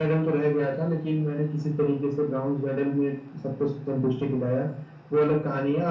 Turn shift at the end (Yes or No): No